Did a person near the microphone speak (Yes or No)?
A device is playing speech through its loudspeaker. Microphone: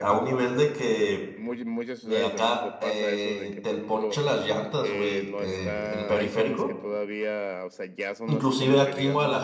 Yes